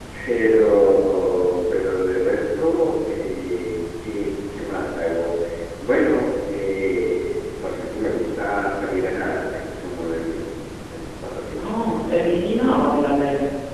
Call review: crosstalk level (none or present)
none